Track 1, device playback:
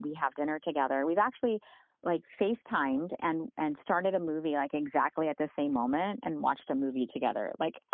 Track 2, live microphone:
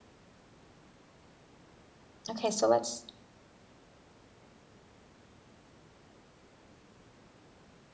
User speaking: Yes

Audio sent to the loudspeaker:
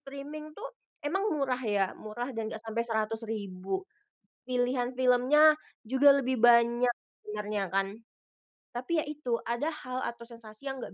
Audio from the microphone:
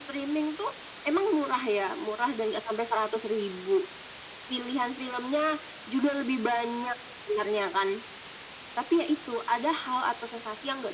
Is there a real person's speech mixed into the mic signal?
No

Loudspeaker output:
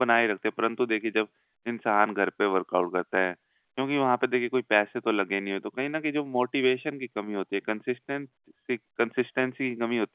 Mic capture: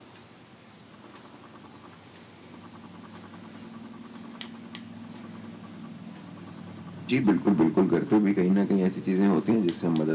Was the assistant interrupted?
Yes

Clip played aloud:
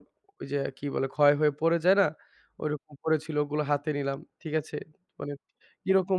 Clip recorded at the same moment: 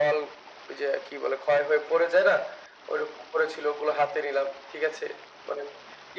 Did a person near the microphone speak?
No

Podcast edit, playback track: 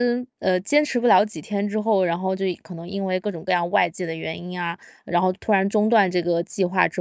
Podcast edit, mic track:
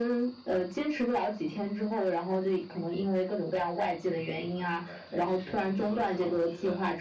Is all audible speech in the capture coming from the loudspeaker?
No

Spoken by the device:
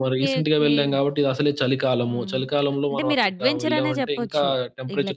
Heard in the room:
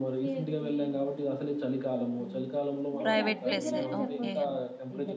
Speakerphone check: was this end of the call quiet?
No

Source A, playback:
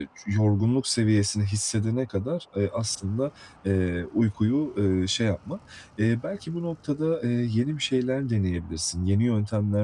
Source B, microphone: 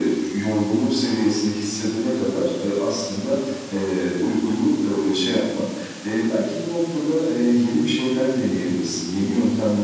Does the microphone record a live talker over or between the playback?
No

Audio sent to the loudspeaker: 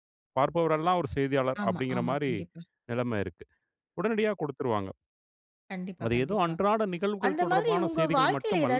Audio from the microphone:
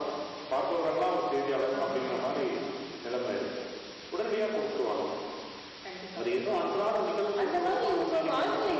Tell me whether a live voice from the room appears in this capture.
No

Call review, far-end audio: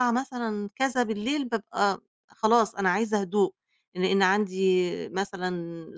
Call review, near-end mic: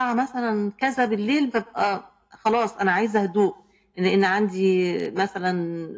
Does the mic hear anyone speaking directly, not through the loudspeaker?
No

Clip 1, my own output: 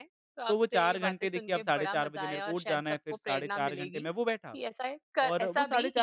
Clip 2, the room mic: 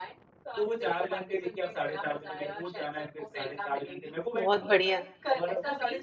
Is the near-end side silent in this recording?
No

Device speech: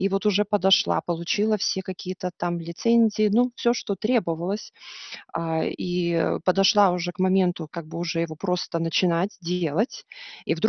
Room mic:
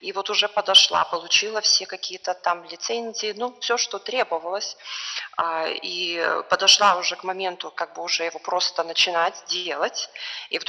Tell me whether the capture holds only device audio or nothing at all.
Yes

